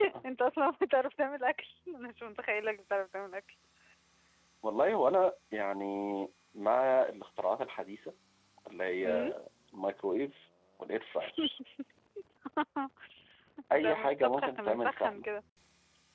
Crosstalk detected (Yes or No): Yes